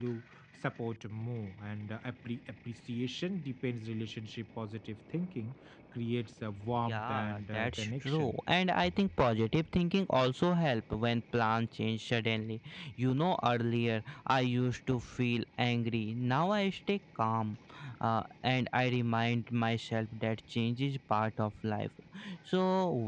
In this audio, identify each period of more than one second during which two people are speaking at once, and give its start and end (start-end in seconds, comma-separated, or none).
6.8-8.4